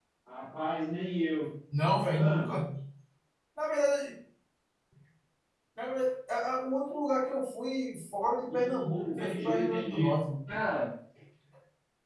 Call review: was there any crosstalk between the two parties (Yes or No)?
Yes